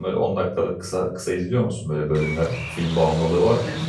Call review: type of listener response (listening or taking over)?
taking over